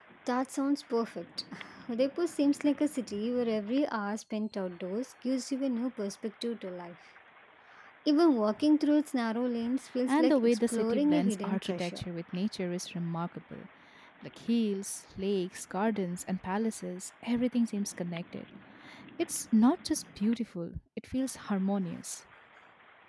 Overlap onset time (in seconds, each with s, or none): 10.1 s